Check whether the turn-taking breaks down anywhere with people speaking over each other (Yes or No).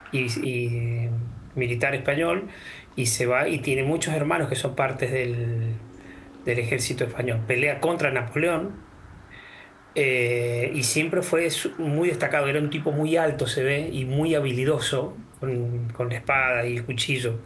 No